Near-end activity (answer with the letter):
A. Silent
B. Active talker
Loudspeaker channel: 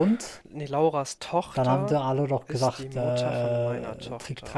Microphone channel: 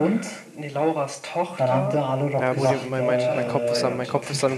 B